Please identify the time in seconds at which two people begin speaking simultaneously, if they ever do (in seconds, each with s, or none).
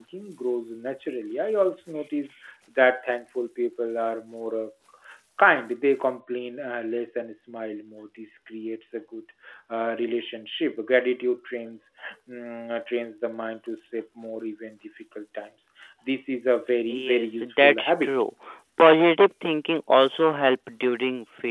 16.9 s